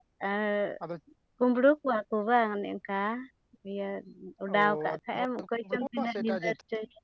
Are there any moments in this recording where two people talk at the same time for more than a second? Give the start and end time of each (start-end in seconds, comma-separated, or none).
4.5-6.5